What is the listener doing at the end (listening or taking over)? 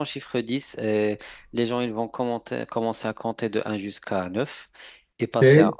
listening